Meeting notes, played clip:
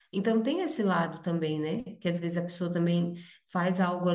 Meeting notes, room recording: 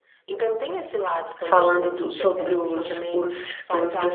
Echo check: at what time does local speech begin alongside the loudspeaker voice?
1.4 s

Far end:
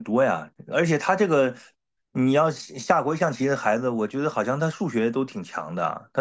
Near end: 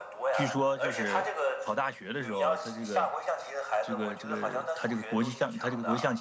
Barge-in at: 0.3 s

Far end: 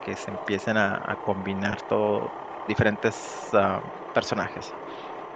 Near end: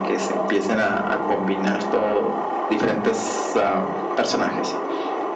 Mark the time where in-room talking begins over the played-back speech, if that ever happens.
none

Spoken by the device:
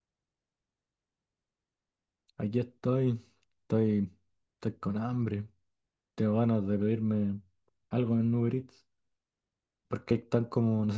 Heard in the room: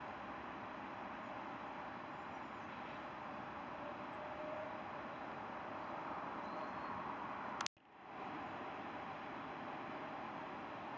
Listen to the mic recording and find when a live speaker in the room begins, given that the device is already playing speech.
none

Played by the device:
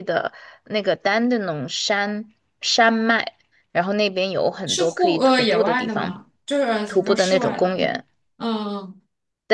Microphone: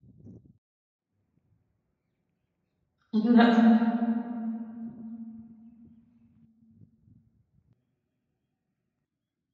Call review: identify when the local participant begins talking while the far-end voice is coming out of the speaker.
3.1 s

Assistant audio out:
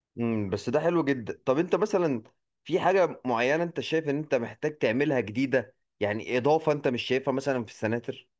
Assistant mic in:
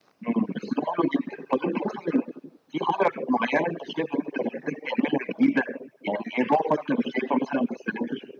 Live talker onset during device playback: none

